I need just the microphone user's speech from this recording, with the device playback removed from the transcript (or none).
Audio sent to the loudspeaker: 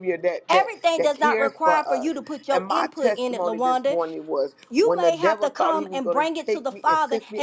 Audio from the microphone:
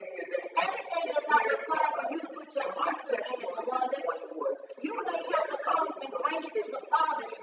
none